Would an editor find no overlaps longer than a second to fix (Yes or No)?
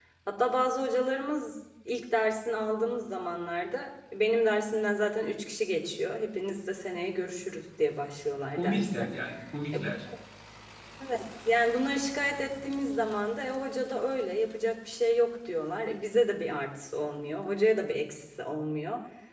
Yes